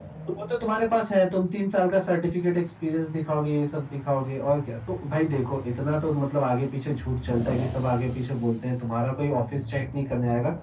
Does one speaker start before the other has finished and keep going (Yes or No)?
No